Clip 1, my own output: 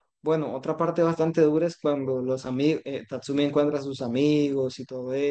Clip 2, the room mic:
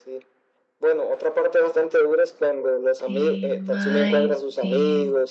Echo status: present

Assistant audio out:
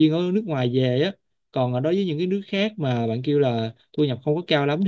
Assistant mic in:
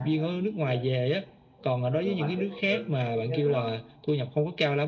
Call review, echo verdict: present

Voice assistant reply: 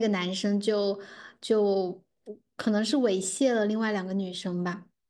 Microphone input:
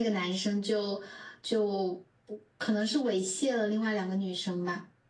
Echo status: present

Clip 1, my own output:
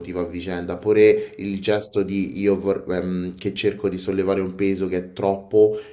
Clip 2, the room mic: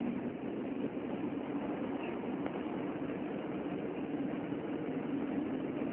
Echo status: none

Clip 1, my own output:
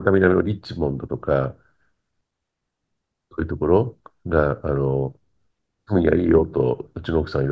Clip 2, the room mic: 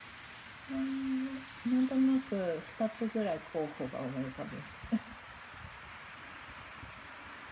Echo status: none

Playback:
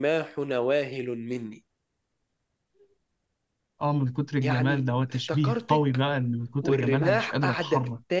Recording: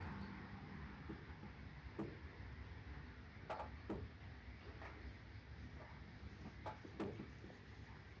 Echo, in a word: none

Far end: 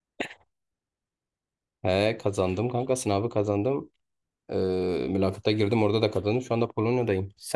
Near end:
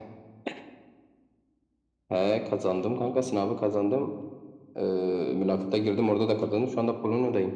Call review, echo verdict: present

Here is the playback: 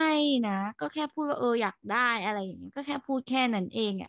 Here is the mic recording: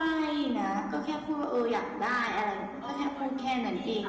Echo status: present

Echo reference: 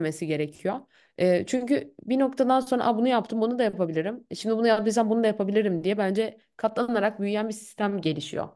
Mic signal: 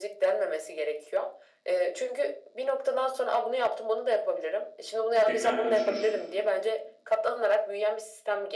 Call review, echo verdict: present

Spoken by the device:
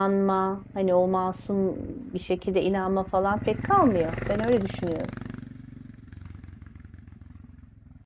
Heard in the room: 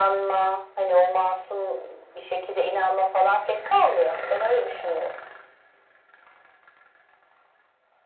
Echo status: present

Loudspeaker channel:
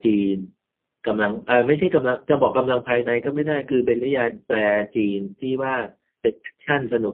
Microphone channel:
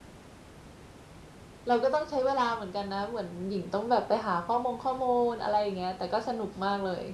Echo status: none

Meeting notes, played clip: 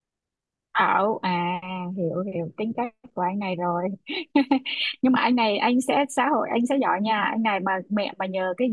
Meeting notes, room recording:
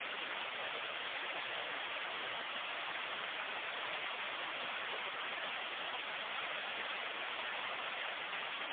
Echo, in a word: none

